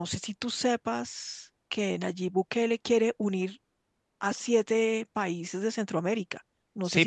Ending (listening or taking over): taking over